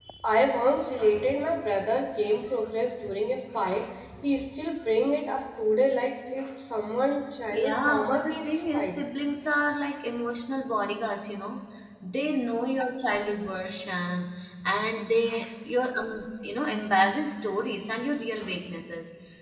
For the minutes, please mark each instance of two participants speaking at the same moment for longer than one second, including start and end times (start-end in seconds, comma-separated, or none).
7.5-9.0